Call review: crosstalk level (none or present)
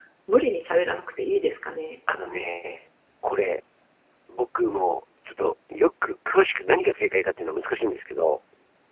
none